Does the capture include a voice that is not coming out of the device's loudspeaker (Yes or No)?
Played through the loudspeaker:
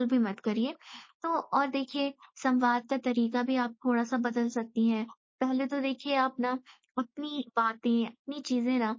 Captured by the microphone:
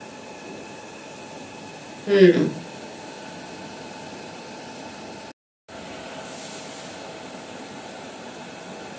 Yes